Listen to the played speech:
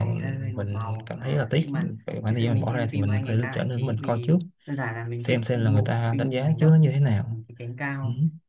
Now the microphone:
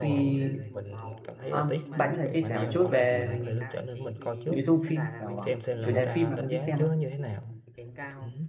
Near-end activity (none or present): present